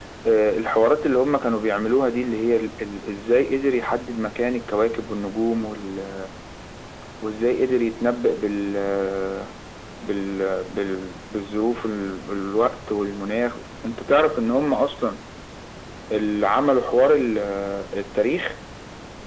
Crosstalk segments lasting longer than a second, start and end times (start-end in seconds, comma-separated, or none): none